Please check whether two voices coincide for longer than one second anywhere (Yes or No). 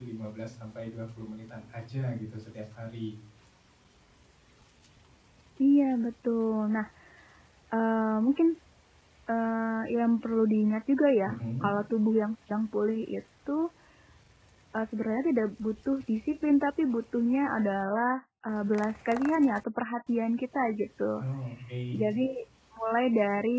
No